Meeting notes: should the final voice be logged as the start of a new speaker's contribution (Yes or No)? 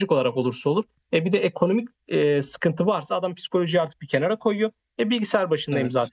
No